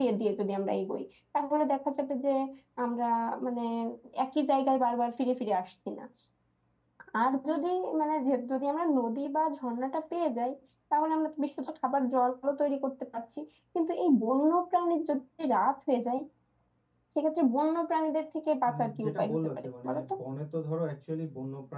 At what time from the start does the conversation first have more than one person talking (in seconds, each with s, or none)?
18.6 s